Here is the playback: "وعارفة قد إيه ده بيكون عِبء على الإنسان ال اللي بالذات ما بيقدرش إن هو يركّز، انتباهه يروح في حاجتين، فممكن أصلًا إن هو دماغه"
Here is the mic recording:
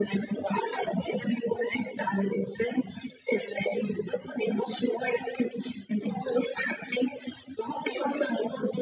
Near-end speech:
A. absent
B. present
A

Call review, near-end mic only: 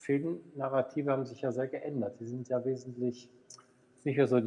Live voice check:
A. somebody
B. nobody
A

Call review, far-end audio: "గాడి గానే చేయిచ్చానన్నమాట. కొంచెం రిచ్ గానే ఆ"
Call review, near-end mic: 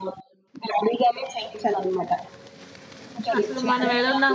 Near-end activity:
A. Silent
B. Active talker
B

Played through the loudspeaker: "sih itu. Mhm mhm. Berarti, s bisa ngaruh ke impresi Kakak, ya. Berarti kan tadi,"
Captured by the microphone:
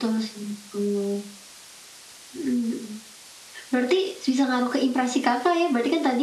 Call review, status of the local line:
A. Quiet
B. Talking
A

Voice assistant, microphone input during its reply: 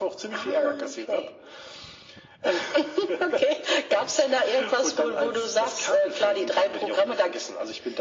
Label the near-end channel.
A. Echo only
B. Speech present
A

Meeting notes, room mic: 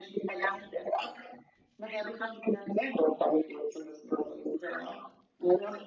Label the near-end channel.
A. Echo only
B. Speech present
A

